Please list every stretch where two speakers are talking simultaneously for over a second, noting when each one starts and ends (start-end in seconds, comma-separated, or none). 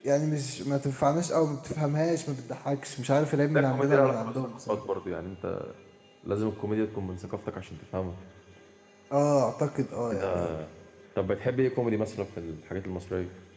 3.5-4.8